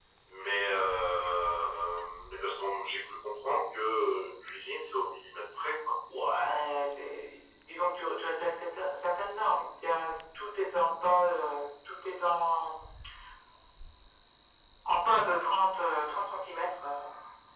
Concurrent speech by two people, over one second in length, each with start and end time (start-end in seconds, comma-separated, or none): none